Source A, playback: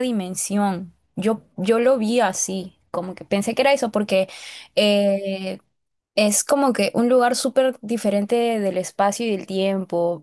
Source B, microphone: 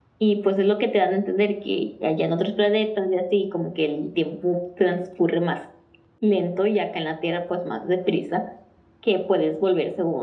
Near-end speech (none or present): present